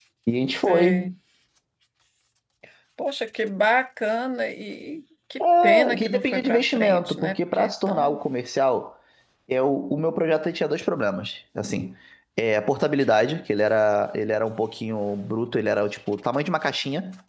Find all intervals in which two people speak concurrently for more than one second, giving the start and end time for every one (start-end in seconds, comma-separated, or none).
5.4-8.2